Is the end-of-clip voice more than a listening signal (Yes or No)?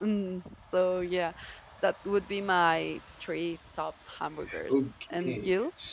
Yes